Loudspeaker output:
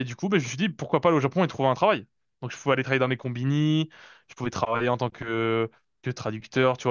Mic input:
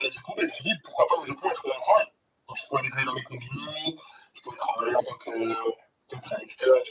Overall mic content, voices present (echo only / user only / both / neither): echo only